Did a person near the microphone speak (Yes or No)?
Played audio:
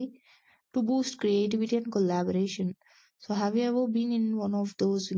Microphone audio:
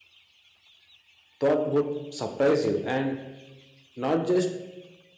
Yes